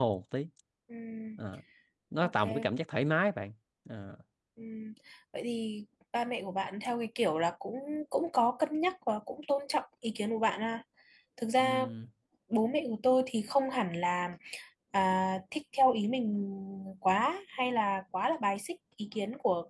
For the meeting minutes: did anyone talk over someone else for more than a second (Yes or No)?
No